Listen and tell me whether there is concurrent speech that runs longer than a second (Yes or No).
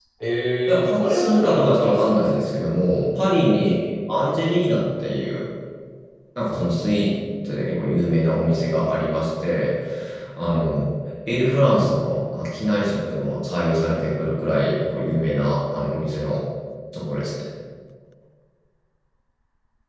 Yes